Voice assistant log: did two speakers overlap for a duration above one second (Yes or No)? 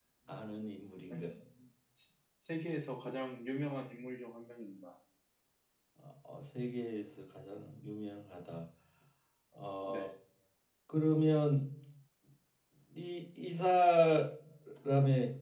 No